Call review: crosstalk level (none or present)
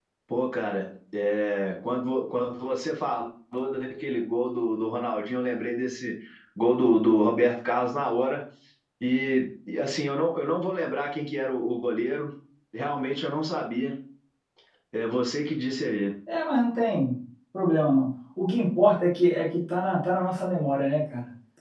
none